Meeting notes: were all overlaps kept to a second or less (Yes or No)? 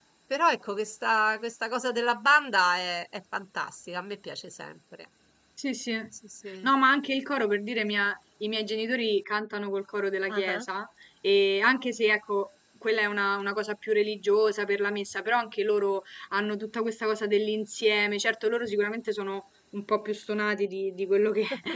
Yes